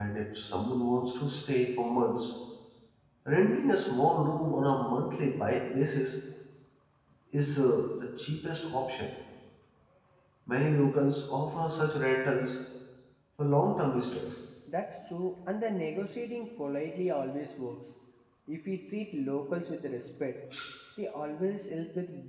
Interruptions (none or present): none